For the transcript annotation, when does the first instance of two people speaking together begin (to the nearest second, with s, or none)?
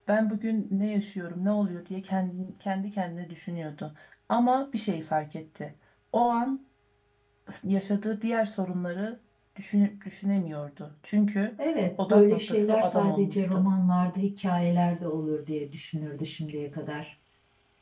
12 s